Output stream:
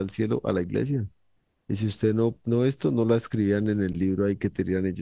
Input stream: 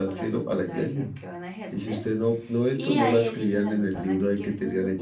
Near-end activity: present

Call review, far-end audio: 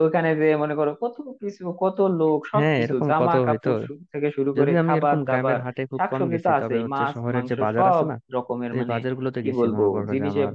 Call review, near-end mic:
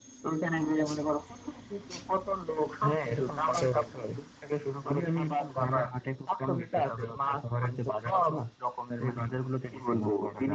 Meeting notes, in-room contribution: none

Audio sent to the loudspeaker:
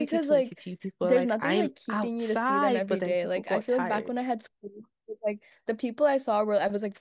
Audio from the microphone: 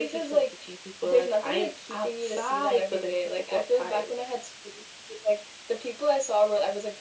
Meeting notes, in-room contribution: none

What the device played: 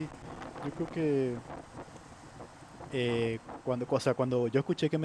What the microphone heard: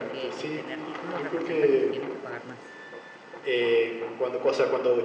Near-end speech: present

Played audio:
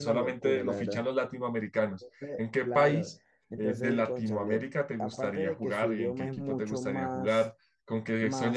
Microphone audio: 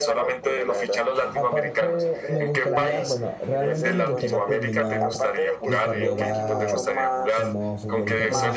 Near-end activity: present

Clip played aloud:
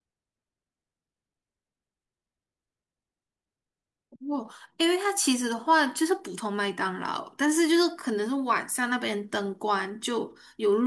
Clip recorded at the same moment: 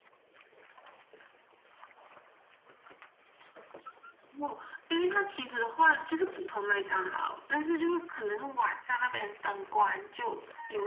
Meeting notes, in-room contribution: none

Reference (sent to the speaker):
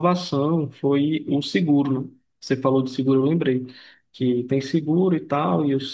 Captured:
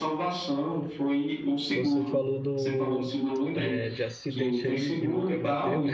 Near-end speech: present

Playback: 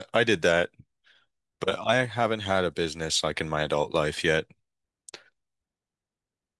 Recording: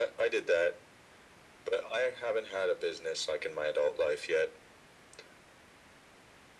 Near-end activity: none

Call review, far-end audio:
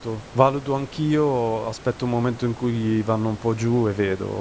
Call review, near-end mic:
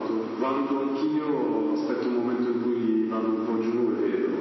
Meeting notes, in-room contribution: none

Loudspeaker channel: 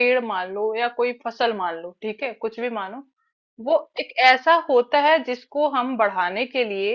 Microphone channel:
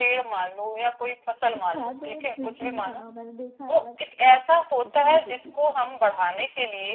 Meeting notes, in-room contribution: present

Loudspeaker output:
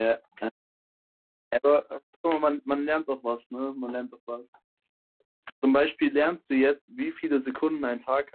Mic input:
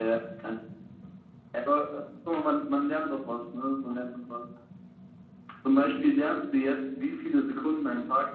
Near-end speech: none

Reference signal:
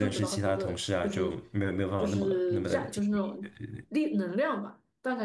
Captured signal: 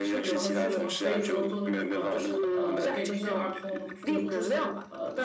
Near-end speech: present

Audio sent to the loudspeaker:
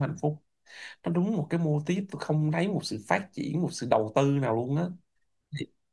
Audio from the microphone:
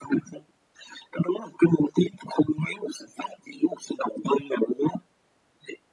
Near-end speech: none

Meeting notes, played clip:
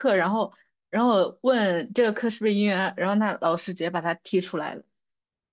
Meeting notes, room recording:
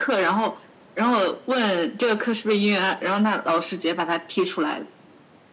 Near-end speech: none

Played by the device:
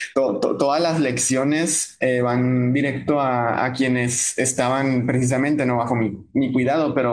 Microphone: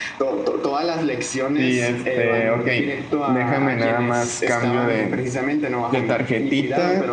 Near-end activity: present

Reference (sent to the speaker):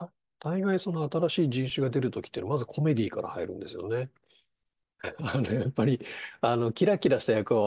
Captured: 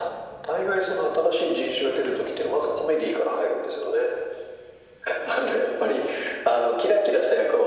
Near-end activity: none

